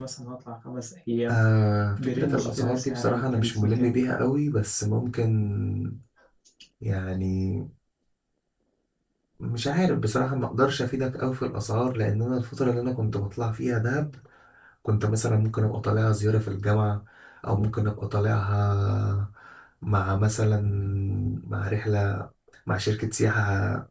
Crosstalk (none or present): present